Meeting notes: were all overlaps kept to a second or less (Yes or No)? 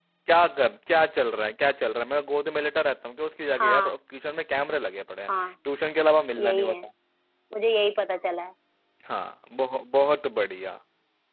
Yes